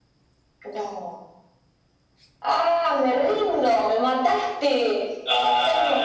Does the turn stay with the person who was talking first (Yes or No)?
No